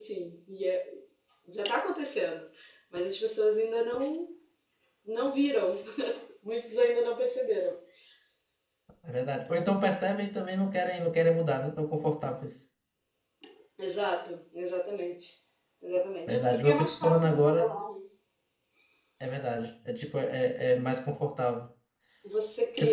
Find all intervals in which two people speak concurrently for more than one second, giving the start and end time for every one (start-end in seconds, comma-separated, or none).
16.3-17.7